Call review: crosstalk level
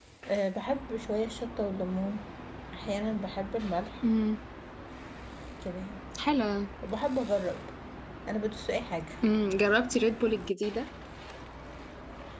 none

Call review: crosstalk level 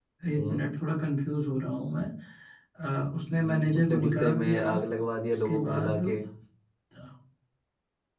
present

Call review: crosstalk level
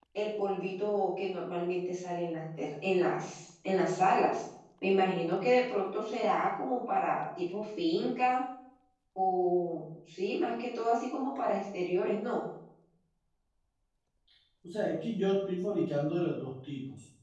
none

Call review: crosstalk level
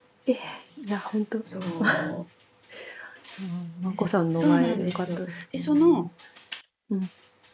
present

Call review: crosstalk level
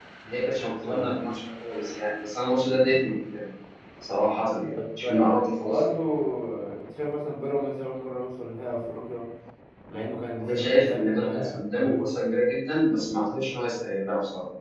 present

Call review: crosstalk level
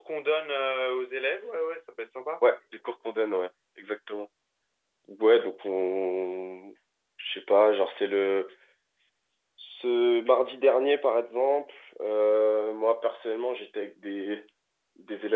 none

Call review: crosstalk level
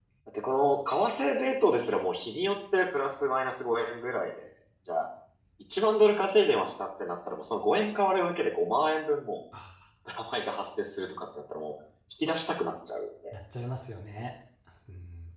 none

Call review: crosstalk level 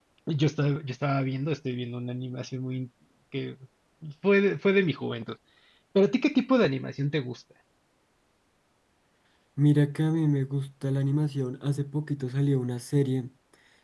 none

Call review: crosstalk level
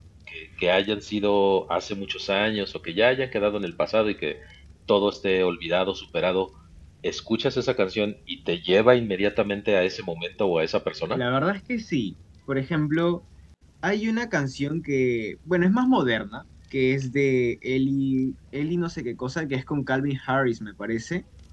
none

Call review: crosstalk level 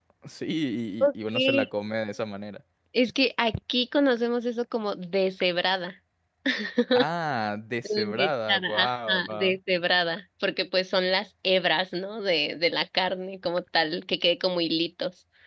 present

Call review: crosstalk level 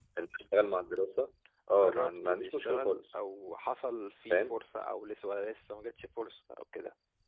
present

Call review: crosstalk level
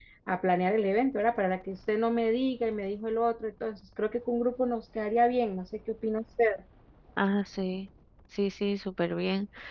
none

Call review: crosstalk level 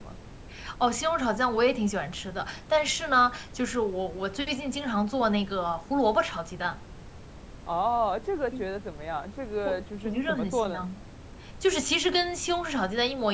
present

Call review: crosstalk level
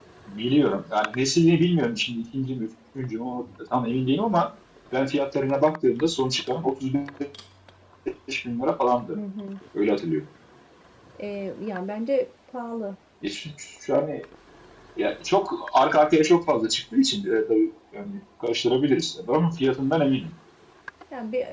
none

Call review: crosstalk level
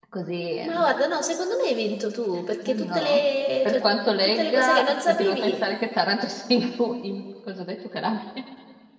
present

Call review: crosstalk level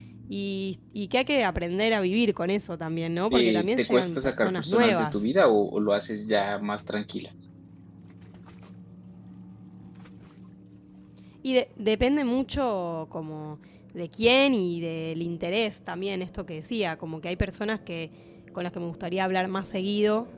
present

